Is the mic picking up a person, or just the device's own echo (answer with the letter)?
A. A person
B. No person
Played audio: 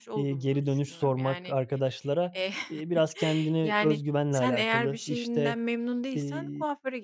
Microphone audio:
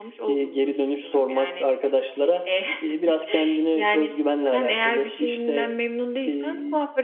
B